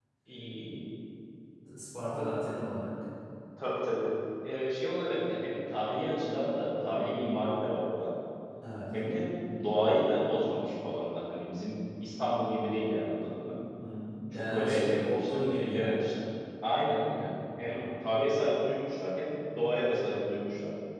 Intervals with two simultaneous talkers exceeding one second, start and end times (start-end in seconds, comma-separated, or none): 14.3-16.0